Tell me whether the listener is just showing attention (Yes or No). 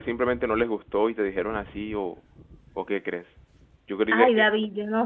No